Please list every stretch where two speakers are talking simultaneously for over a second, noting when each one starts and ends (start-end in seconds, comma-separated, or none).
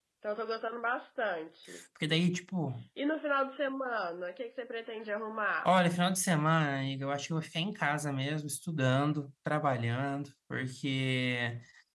none